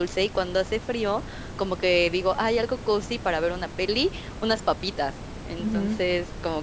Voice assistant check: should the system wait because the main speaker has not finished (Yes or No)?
Yes